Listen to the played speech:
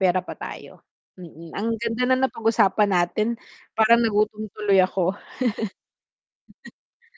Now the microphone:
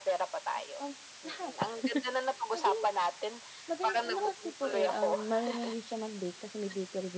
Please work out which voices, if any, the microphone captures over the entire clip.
both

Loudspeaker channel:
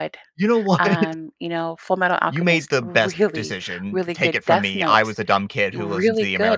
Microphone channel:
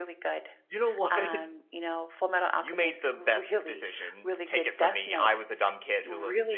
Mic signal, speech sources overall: echo only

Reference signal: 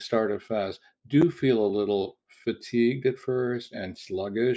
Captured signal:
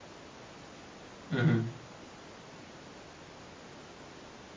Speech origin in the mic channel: user only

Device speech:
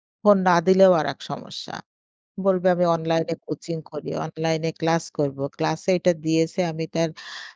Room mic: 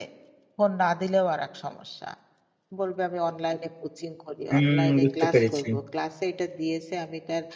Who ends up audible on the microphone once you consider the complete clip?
both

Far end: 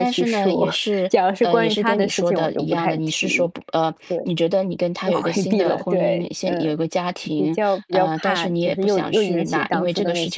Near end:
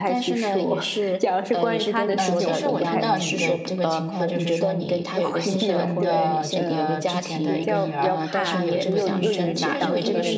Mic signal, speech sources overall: both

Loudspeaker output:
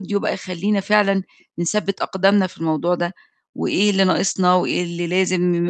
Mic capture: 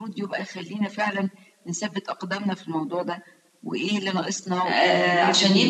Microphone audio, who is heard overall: both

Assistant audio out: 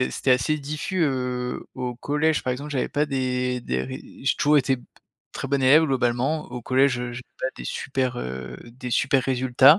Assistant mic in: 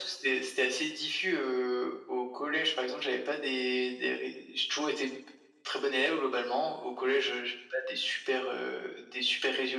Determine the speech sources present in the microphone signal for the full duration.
echo only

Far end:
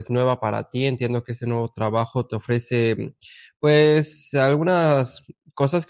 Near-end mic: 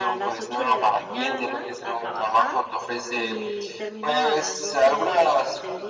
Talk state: both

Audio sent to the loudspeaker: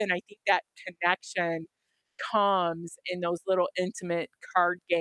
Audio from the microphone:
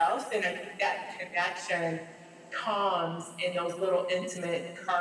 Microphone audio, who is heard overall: echo only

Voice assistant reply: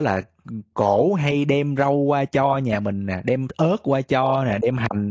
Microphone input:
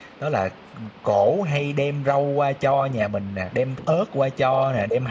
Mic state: echo only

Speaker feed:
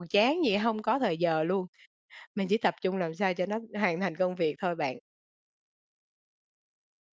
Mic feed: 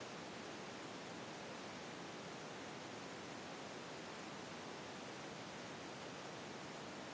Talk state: neither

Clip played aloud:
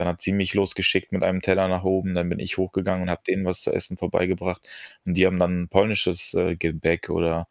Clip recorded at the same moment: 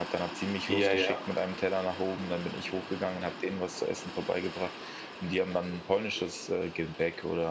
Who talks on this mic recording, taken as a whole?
both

